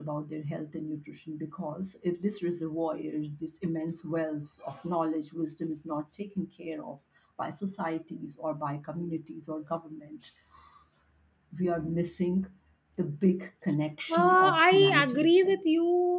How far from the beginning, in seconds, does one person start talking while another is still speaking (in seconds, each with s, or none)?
14.1 s